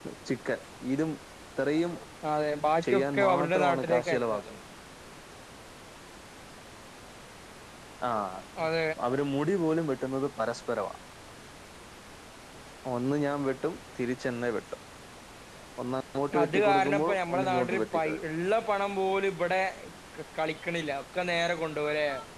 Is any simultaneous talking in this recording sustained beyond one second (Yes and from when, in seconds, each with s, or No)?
Yes, from 2.8 s